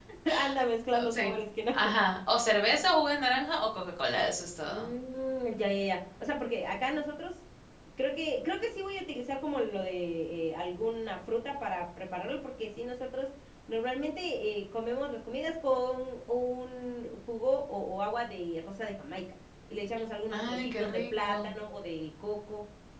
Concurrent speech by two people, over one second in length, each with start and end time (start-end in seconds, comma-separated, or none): 20.3-21.5